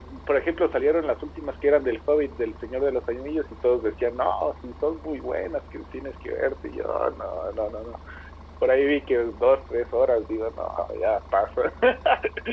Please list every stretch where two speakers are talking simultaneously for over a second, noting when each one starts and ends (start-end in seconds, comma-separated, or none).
none